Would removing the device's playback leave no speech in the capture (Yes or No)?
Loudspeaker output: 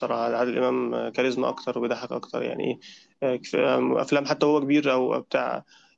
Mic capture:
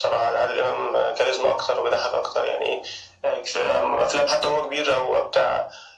Yes